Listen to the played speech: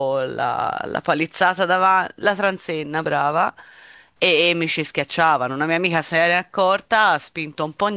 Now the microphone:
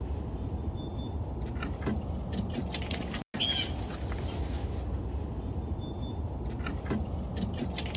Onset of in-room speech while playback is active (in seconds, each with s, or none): none